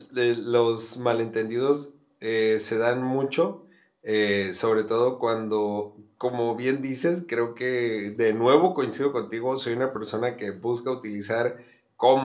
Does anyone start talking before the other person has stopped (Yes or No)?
No